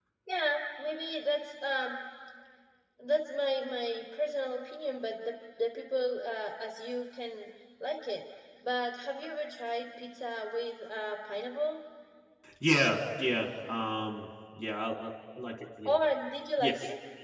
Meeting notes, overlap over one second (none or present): none